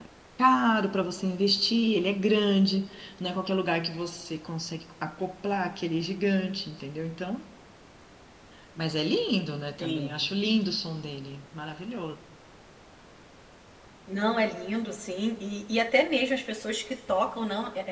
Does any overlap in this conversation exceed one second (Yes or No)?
No